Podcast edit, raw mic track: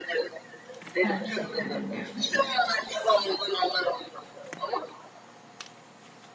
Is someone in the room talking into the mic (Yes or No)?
Yes